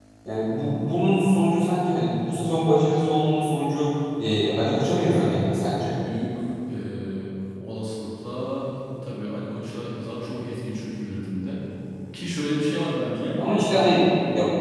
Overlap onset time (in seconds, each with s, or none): none